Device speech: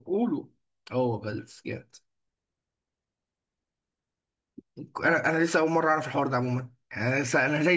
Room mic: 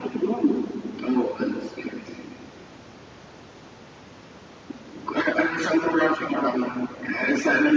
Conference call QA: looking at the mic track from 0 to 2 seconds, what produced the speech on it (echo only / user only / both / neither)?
echo only